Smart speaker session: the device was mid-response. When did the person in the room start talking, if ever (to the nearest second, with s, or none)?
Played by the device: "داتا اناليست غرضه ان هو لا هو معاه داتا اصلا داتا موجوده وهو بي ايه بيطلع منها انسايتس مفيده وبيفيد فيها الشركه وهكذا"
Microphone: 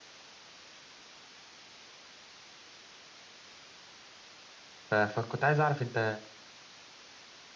5 s